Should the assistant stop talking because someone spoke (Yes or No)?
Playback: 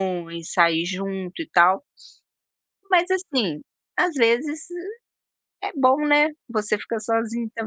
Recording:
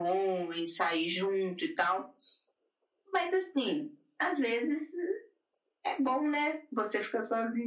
No